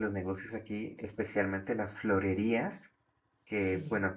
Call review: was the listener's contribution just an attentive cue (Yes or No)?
Yes